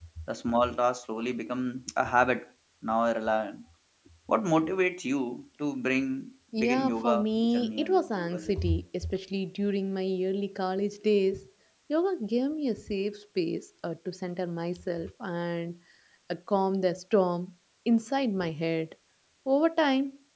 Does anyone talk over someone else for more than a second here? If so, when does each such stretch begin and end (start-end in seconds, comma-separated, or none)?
6.6-8.7